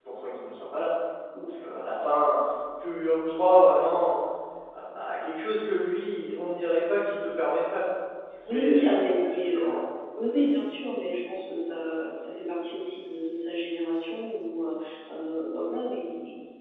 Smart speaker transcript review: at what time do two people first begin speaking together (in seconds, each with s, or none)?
8.4 s